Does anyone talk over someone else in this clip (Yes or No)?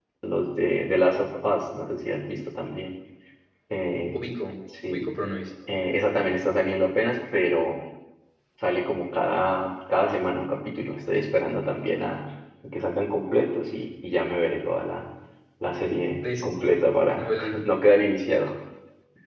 Yes